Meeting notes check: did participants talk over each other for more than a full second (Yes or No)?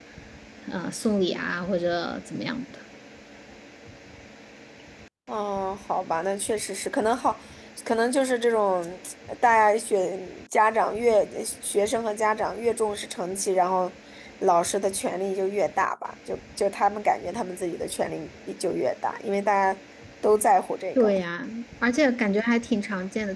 No